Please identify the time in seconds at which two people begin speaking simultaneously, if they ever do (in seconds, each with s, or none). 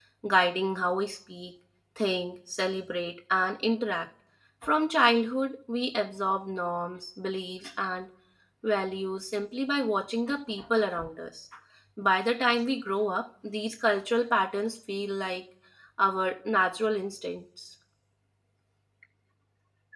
none